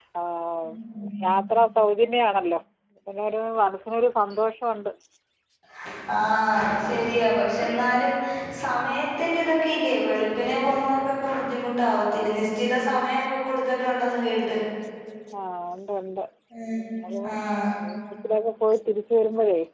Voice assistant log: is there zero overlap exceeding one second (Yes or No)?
Yes